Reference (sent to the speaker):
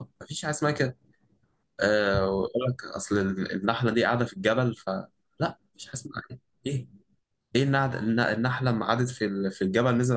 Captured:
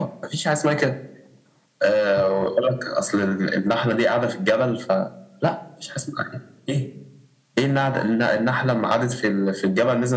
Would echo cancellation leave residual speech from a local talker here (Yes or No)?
No